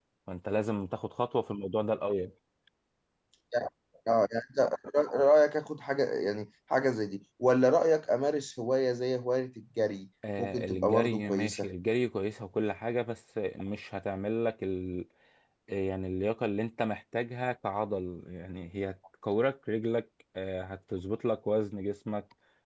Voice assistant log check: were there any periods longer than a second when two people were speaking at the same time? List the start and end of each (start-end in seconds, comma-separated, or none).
10.4-11.7